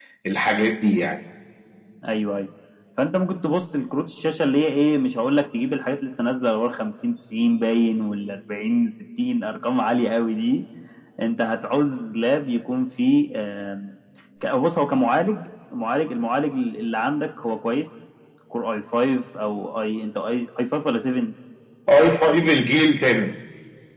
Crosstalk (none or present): none